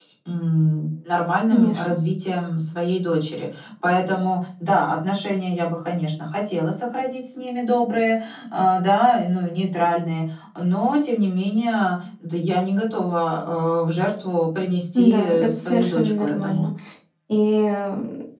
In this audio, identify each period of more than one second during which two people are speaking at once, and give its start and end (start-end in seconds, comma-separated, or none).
14.9-16.7